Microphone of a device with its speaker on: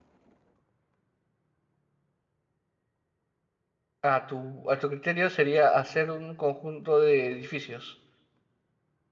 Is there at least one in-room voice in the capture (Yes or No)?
Yes